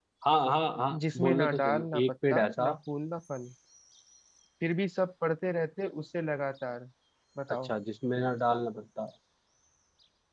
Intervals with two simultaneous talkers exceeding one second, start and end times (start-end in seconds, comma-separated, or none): 1.1-2.6